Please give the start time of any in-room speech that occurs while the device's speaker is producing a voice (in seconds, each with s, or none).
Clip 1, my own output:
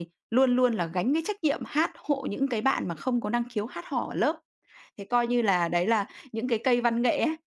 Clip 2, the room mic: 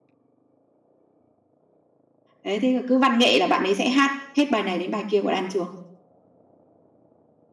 2.4 s